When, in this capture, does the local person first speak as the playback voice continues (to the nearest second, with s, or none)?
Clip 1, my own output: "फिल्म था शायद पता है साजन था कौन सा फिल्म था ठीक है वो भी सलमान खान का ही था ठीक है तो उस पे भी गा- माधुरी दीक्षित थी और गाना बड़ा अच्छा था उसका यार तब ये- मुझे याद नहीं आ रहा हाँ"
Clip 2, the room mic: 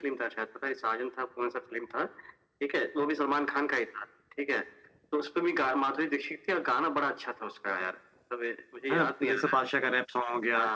9 s